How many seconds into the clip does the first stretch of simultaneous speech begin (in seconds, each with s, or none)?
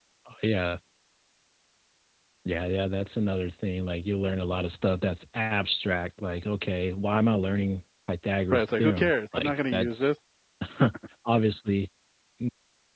8.5 s